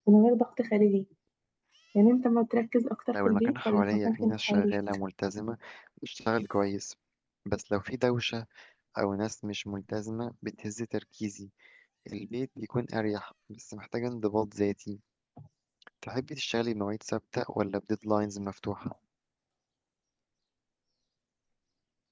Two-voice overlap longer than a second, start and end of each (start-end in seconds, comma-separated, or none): 3.1-4.8